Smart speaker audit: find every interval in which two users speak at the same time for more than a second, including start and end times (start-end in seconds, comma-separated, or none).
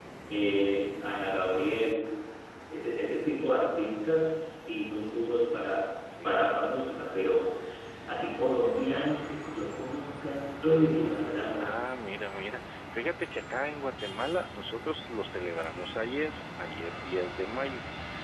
none